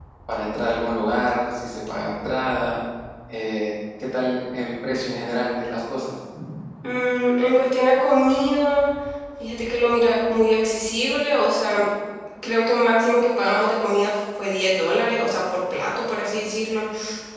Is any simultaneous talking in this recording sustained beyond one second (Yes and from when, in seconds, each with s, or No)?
No